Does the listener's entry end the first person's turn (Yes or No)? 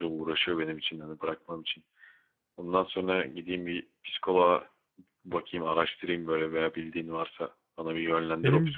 Yes